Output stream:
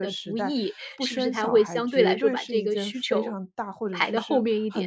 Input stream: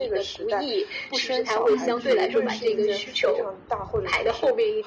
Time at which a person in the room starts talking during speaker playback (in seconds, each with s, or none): 1.6 s